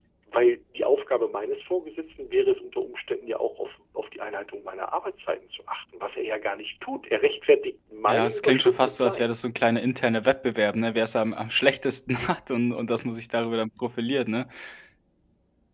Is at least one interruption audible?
Yes, from 8.1 s

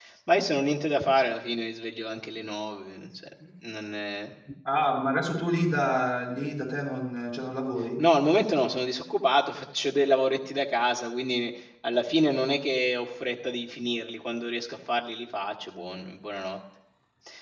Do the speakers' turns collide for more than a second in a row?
No

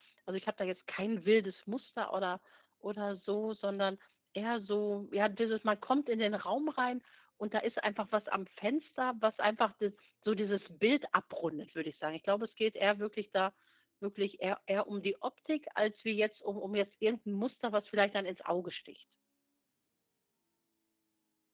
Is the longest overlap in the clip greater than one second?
No

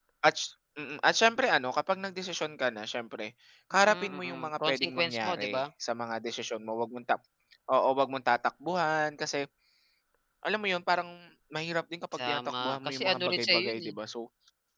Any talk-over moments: Yes, from 3.8 s

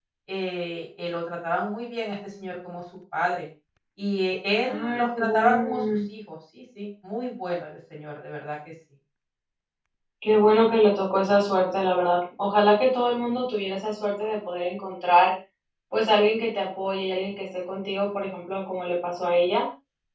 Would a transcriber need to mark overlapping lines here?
Yes, from 4.7 s

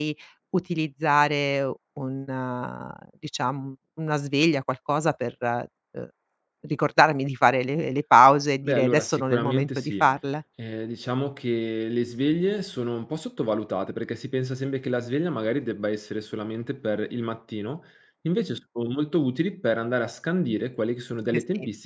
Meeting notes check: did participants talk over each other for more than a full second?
Yes, from 8.6 s

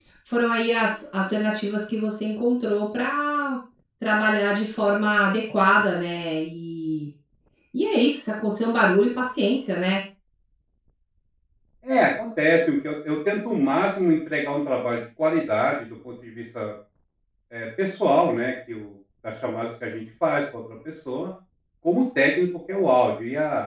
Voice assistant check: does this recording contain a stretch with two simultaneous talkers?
No

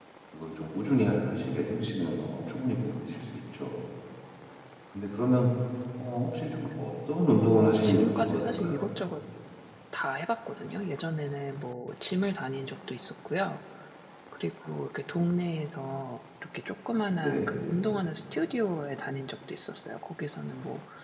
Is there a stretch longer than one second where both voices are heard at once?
Yes, from 7.2 s

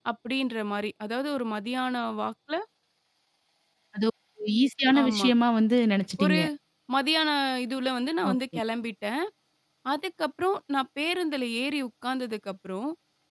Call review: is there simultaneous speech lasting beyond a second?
No

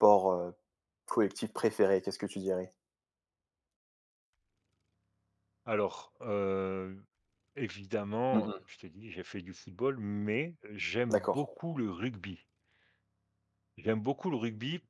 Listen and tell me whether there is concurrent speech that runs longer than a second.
No

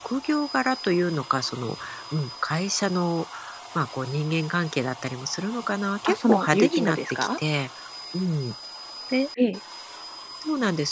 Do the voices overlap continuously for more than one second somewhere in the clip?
Yes, from 6.0 s

